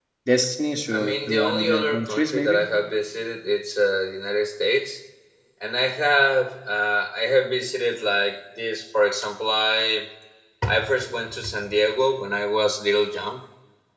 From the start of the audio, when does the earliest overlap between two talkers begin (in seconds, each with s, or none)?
0.9 s